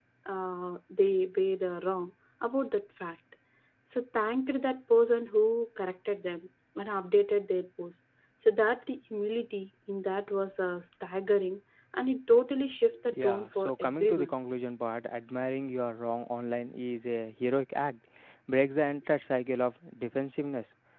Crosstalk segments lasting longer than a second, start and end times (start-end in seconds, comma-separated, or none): 13.1-14.3